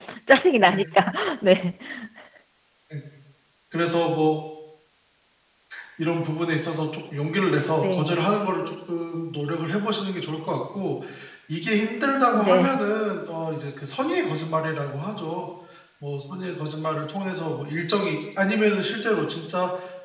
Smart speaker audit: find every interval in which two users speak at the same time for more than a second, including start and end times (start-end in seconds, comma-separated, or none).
none